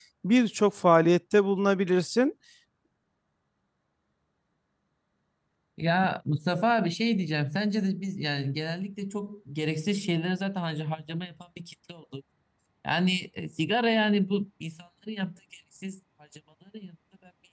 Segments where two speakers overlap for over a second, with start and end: none

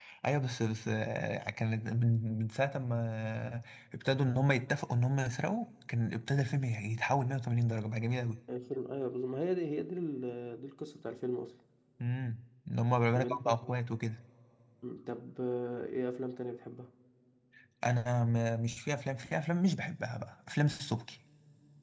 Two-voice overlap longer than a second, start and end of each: none

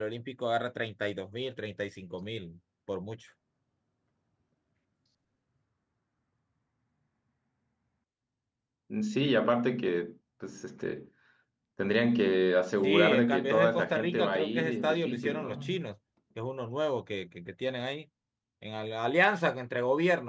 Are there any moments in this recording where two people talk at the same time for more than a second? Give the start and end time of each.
12.8-15.8

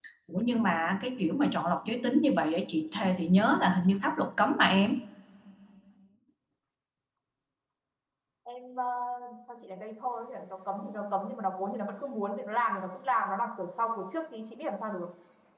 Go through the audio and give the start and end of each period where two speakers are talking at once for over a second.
none

